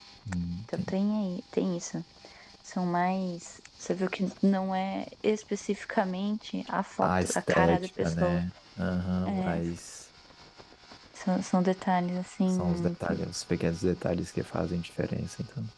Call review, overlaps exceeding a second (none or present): present